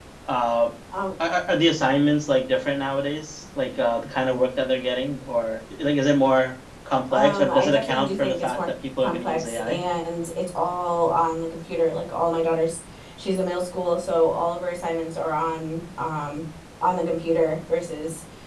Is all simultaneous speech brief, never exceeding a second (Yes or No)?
No